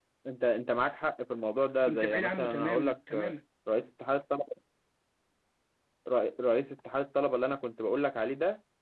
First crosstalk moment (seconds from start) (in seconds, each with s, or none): 1.9 s